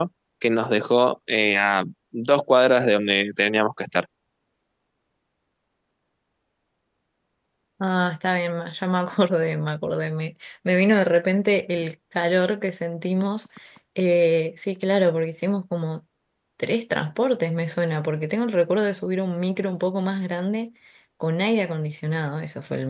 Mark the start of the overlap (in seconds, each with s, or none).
none